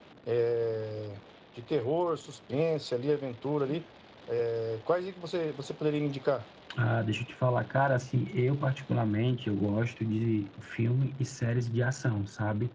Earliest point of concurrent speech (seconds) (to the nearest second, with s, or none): none